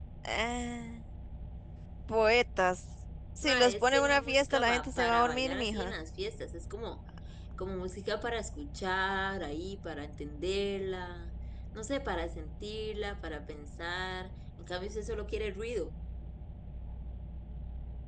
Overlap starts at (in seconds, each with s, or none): 3.4 s